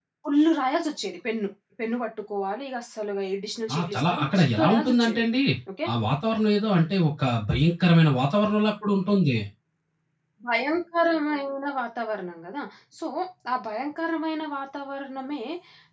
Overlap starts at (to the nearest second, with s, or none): 4 s